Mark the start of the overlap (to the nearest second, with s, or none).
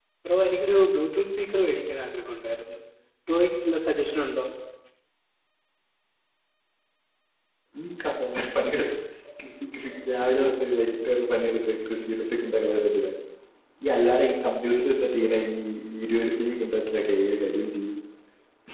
none